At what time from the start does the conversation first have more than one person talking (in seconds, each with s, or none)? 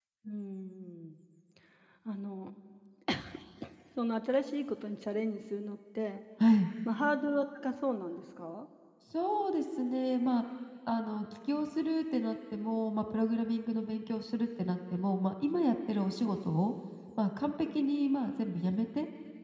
none